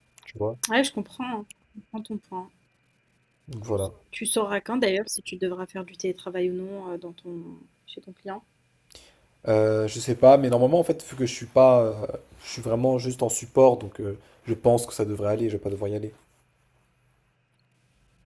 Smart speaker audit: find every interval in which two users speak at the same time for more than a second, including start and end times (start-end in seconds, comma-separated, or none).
none